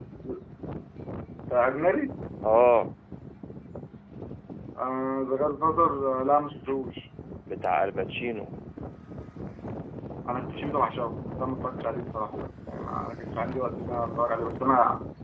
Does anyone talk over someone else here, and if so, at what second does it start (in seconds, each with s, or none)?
none